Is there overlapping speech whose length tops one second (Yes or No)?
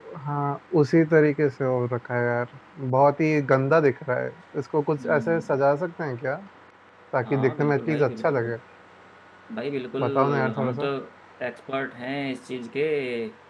Yes